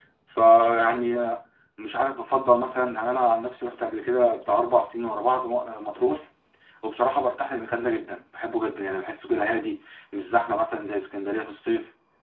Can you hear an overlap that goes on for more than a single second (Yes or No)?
No